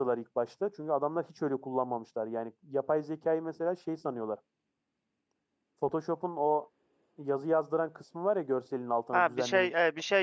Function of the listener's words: taking over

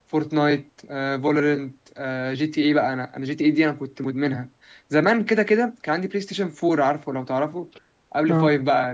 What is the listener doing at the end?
listening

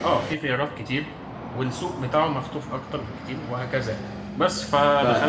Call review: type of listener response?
listening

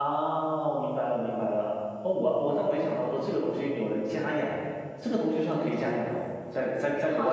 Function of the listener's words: taking over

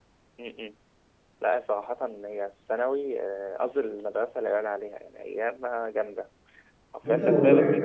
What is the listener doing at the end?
taking over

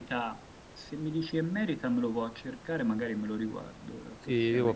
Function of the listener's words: taking over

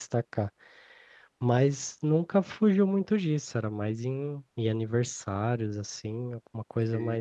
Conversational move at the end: listening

